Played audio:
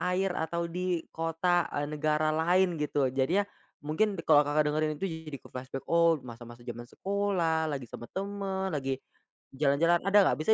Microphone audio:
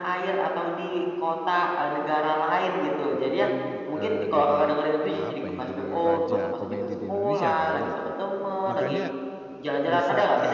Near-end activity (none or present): present